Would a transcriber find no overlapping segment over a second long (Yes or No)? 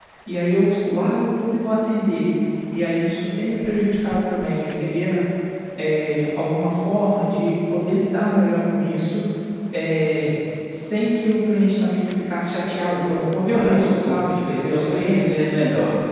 No